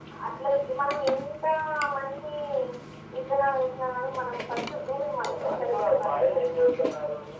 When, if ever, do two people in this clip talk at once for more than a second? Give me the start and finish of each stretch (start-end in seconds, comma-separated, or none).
4.8-6.4